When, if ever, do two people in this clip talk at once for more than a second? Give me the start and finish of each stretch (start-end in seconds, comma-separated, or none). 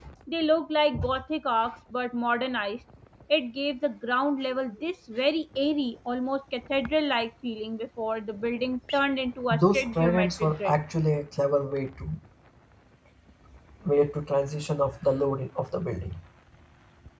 9.5-10.7